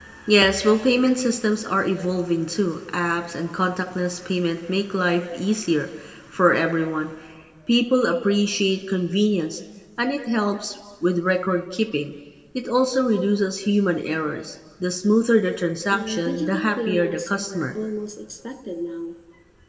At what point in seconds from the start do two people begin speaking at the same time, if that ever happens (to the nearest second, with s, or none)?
16 s